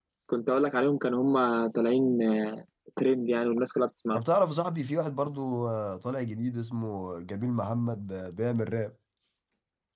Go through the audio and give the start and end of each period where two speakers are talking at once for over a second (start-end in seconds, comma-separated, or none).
none